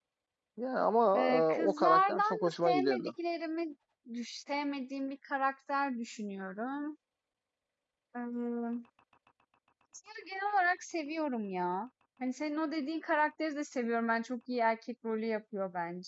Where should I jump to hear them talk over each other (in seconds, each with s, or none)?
1.1 s